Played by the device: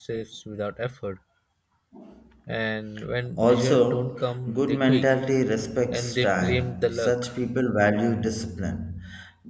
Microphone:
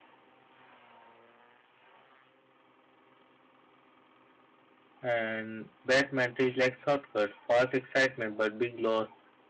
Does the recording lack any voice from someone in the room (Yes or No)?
No